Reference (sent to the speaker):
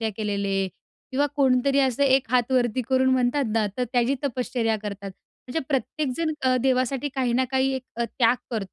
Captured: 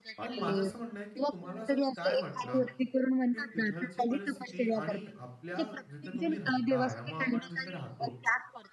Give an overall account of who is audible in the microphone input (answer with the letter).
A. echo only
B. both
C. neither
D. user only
B